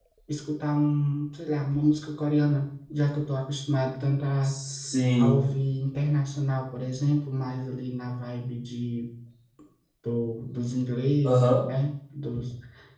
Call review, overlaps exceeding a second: none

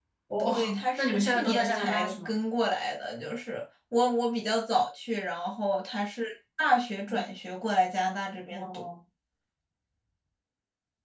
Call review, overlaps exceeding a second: present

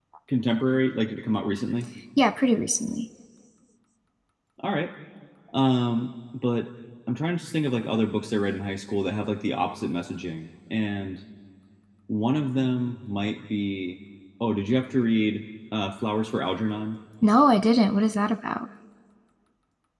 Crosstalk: none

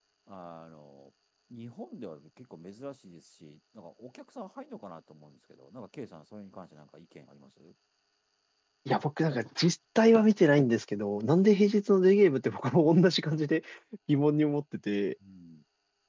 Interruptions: none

